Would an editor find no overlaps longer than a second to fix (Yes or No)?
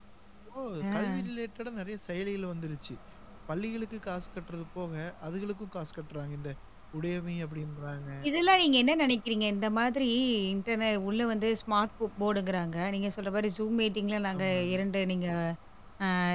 Yes